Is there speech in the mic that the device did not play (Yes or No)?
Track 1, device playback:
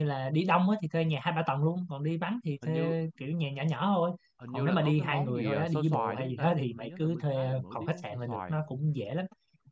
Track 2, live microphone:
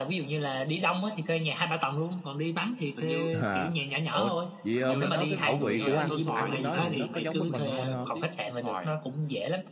Yes